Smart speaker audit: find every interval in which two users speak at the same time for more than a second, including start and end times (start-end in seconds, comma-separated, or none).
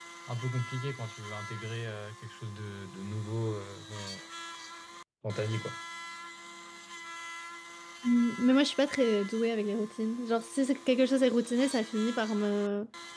none